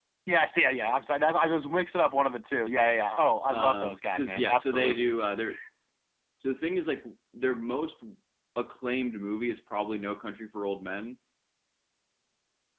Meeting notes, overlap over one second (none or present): present